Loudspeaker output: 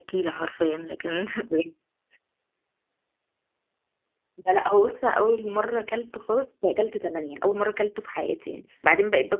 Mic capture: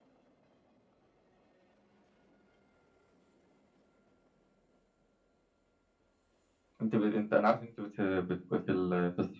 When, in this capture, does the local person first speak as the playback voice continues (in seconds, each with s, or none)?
6.8 s